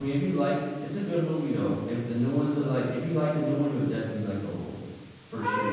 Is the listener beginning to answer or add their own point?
Yes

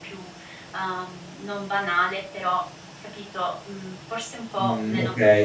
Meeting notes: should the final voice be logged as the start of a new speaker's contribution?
Yes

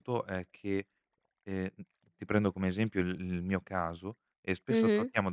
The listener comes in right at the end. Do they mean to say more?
No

